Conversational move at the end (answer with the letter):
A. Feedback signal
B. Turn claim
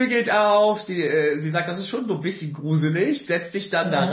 A